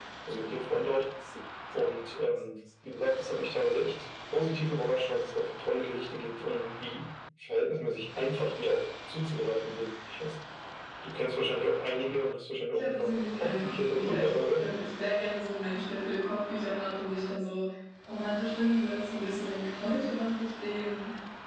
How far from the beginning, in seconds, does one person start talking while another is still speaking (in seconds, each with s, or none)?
12.7 s